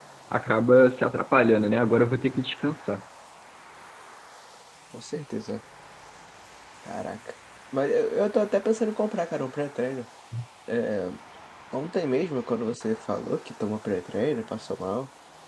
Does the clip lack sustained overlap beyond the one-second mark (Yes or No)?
Yes